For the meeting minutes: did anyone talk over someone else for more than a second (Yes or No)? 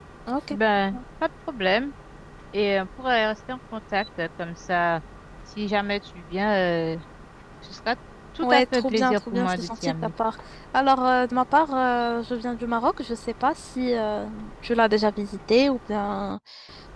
Yes